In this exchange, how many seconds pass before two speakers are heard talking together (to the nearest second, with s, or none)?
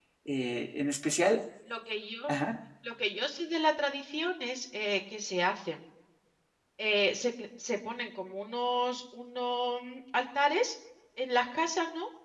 none